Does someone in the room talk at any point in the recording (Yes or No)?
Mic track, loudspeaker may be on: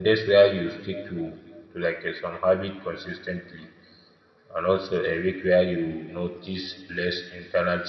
Yes